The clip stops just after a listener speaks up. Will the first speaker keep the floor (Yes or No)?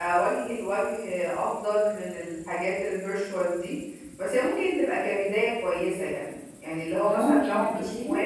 Yes